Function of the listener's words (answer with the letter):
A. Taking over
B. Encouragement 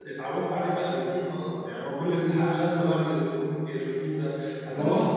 B